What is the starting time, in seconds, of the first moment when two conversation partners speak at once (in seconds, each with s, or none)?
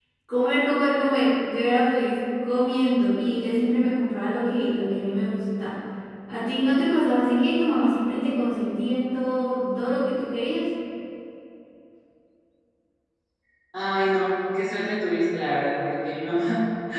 none